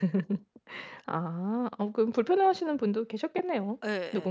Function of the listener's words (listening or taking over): taking over